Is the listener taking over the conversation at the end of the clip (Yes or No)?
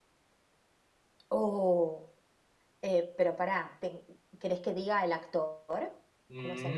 Yes